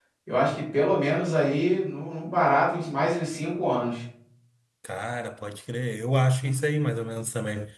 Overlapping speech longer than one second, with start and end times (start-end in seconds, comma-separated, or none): none